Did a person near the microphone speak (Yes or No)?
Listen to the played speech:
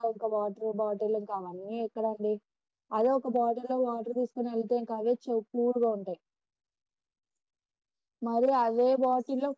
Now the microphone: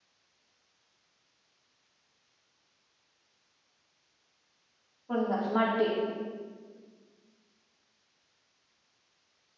Yes